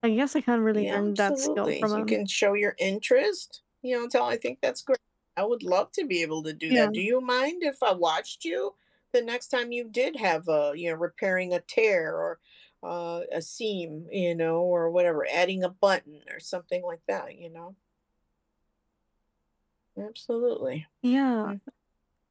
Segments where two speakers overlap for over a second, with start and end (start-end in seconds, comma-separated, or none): 0.7-2.2